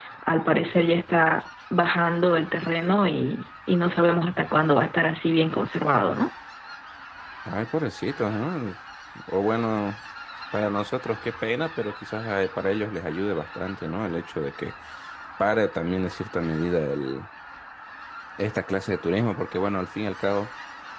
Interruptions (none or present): none